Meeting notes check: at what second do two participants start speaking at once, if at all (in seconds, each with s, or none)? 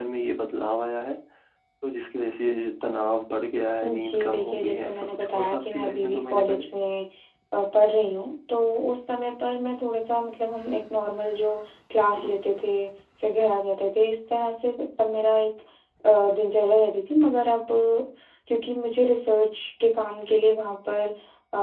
3.8 s